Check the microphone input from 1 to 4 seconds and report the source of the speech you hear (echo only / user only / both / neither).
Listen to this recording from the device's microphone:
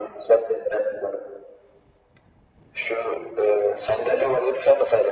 echo only